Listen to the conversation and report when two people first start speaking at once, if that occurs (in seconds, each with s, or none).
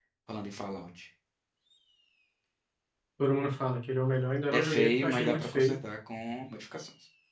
4.5 s